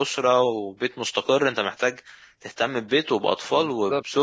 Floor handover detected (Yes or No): No